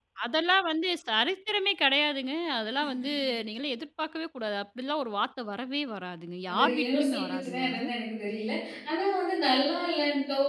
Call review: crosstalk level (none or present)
present